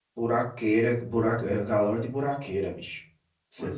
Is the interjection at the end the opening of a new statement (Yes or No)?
No